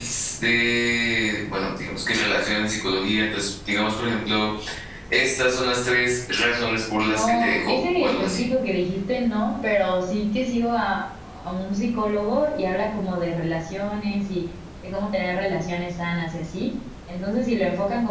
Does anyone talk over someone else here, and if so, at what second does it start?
7 s

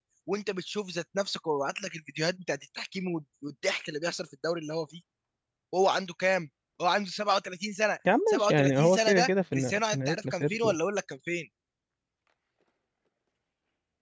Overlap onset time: 8 s

